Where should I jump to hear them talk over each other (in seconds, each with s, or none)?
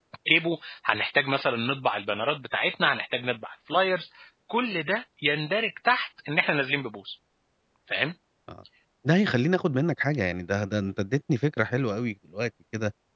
none